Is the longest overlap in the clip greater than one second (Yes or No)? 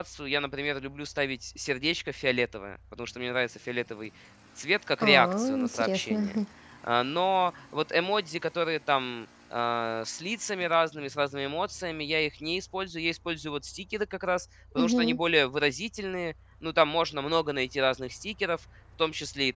Yes